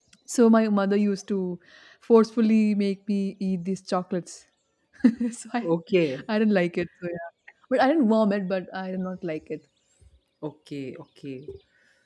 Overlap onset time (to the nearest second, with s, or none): none